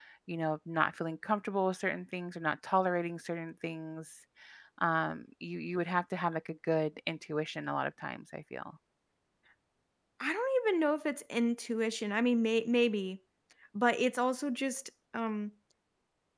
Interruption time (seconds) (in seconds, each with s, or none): none